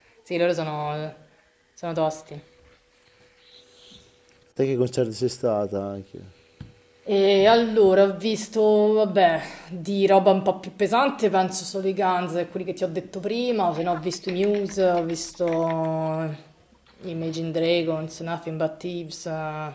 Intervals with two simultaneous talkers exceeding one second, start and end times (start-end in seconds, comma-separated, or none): none